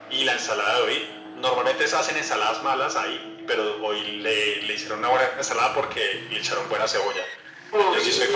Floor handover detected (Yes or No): No